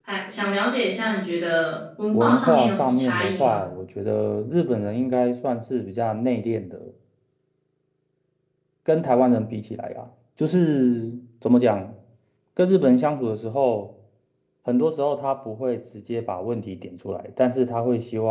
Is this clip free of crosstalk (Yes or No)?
No